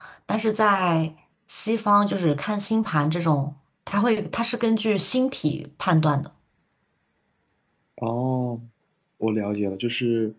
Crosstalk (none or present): none